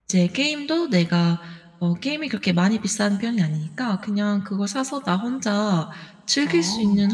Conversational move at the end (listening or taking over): listening